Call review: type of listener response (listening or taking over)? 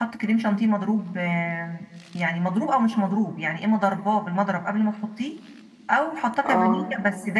listening